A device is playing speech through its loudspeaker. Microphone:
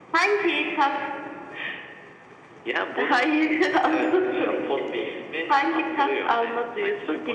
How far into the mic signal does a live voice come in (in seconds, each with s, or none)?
none